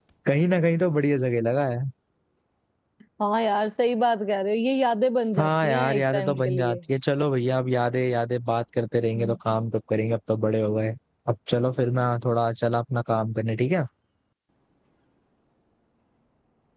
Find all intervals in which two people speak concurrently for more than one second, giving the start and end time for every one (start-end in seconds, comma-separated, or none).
5.4-6.8